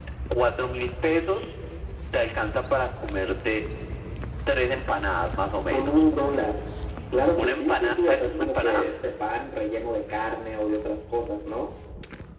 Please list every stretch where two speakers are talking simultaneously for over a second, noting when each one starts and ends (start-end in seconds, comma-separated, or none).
7.4-8.8